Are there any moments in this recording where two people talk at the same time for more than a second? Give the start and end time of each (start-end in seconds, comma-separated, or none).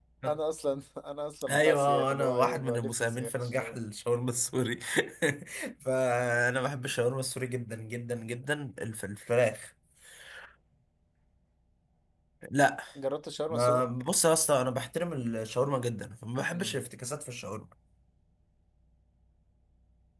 1.5-3.8